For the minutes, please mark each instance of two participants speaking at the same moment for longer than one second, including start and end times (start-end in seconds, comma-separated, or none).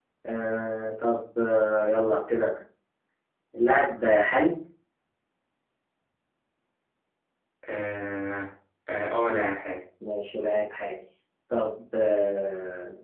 none